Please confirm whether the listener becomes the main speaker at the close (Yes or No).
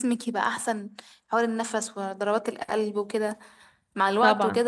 No